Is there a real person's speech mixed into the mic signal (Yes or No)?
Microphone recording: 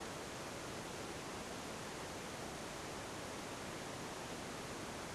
No